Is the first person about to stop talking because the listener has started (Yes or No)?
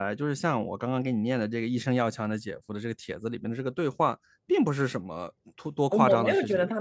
Yes